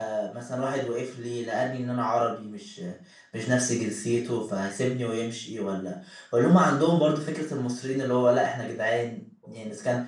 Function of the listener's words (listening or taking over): listening